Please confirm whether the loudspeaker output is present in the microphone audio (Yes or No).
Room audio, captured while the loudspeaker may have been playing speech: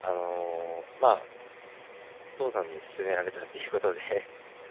No